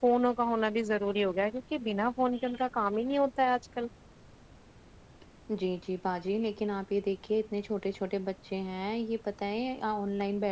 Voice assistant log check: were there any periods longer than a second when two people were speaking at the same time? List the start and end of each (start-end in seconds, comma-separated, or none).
none